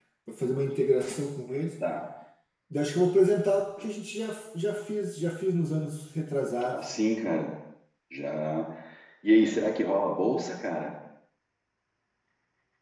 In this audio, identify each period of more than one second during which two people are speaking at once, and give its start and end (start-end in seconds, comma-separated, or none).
none